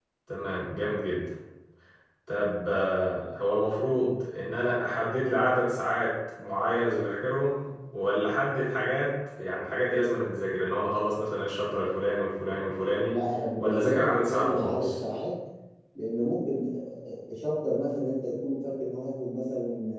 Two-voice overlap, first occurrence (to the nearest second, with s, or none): 14 s